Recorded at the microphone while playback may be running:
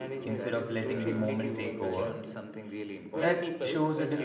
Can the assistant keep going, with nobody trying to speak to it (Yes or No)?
No